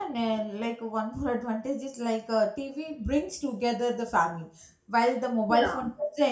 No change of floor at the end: Yes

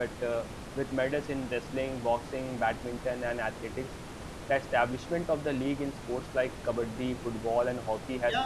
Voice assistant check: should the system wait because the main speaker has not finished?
No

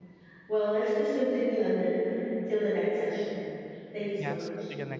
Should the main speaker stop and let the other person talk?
Yes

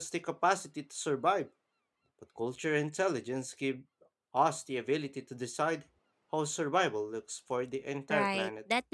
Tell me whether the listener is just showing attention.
No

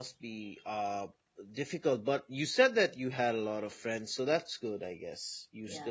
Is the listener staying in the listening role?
No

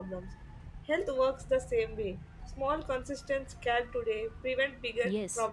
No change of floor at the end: No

